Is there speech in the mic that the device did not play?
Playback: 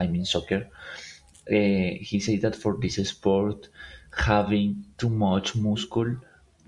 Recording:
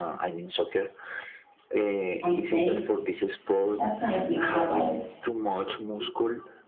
Yes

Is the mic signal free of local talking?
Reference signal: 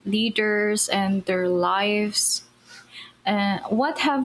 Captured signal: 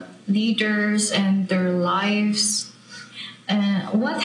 Yes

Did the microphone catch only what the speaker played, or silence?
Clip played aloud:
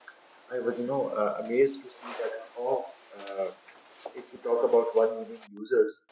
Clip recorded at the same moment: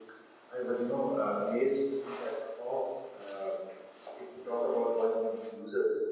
Yes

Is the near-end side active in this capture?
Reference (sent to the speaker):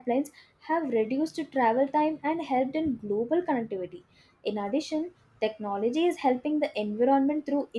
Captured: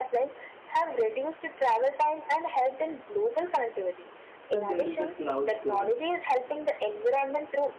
Yes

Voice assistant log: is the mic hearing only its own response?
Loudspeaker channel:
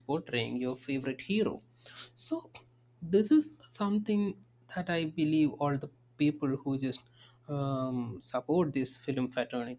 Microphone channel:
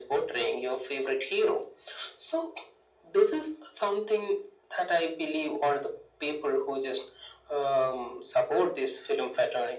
Yes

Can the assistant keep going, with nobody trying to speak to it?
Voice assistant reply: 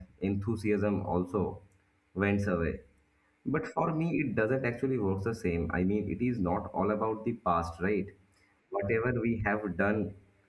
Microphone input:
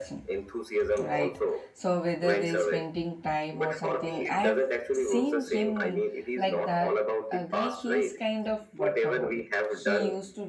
No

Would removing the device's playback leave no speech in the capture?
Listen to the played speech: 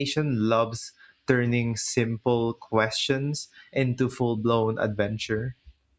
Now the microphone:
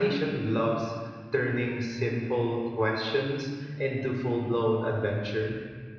Yes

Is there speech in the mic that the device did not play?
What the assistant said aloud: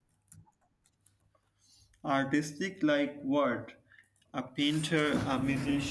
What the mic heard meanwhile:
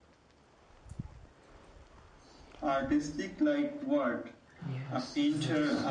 Yes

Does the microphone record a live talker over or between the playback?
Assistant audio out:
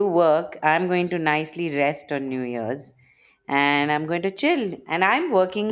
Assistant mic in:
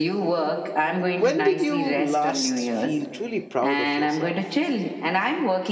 Yes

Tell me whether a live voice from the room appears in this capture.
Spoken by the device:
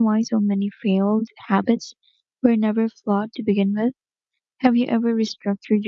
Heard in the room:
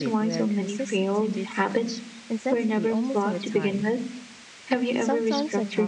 Yes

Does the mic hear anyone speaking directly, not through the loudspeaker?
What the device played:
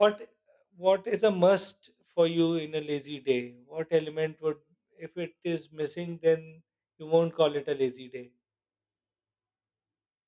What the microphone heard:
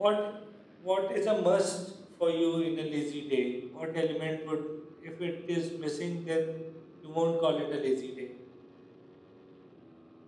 No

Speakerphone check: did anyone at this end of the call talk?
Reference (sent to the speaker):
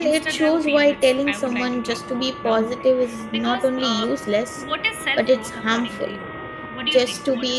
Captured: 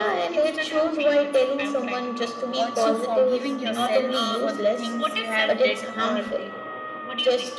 Yes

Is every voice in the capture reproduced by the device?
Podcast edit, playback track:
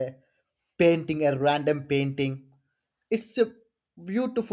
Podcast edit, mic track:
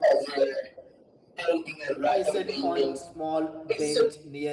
No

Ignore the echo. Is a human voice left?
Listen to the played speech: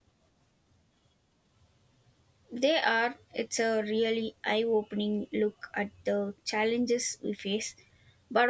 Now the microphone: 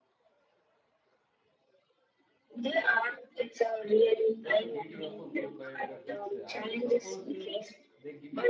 Yes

